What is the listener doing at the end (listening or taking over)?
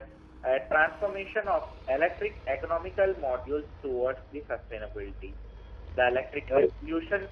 listening